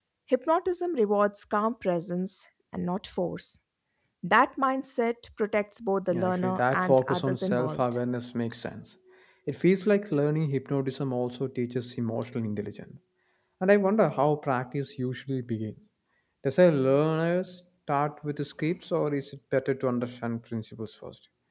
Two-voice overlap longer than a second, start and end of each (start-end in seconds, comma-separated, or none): 6.1-7.8